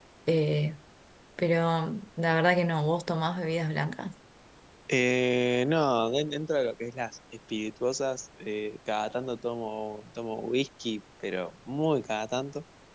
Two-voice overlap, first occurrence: none

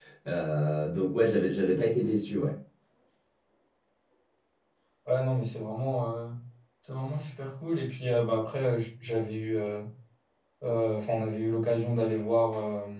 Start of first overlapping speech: none

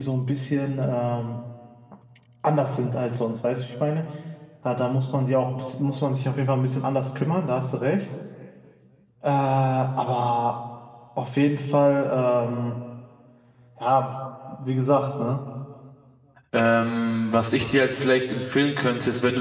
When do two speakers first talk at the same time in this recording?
none

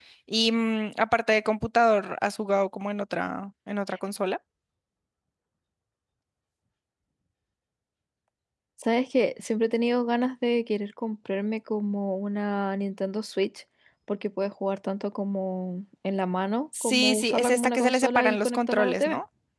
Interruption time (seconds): 16.7 s

